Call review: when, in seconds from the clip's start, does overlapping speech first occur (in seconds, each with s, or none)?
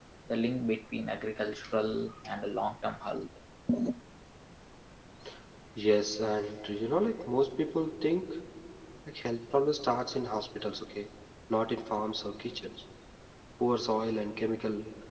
none